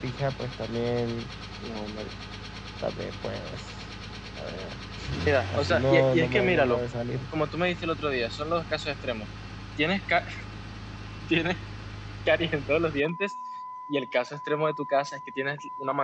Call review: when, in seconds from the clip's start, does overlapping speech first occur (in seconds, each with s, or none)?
5.5 s